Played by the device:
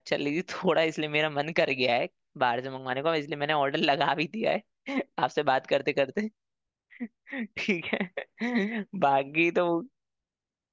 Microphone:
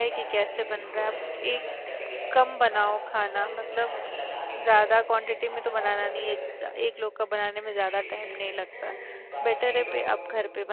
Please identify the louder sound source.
user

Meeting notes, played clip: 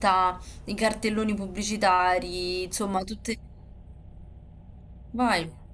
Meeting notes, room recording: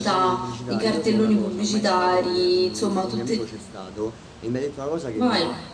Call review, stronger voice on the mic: echo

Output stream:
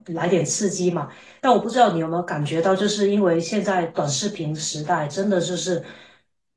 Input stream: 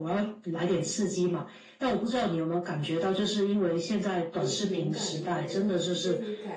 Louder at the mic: echo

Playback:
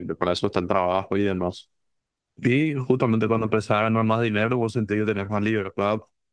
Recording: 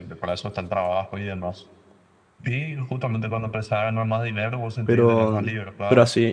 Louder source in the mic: user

